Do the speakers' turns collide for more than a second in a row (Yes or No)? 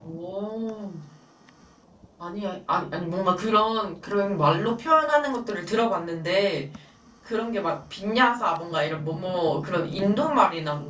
No